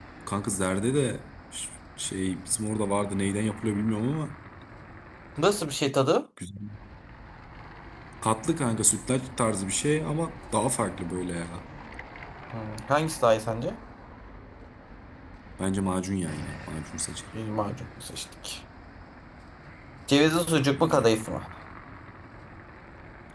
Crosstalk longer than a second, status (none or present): none